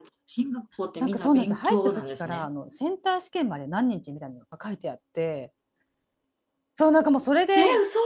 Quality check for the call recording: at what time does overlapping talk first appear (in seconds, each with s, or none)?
1.0 s